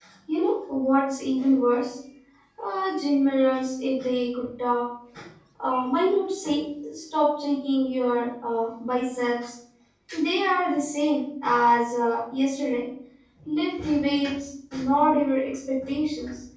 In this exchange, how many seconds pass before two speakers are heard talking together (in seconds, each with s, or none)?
none